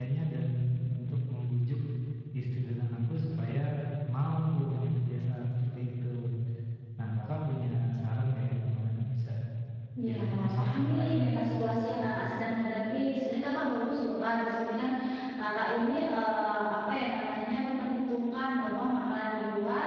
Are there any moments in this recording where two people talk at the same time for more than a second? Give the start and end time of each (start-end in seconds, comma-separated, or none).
10.0-11.7